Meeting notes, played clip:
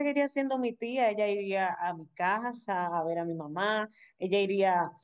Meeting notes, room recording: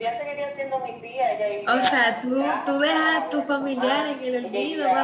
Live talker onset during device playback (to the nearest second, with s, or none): 2 s